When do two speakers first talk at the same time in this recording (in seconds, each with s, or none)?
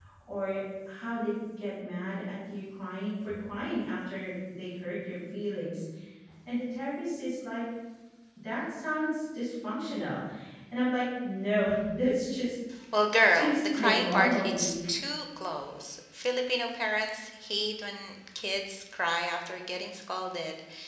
13.3 s